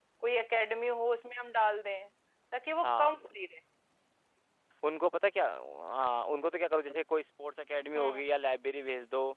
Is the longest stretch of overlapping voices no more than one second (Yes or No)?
Yes